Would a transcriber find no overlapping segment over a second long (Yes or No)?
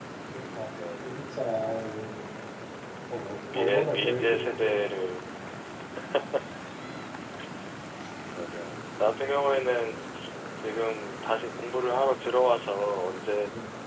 No